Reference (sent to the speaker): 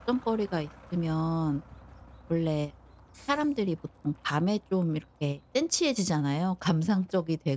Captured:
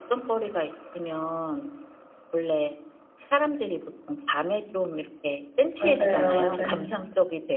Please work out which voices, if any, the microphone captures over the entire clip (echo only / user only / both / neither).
both